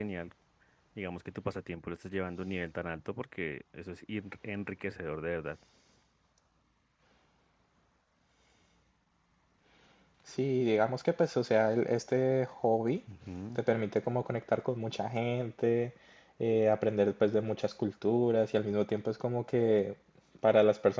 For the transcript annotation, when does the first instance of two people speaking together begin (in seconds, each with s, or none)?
none